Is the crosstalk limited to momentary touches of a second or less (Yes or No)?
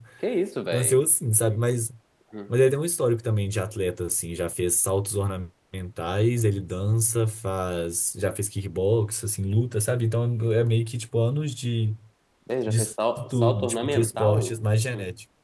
No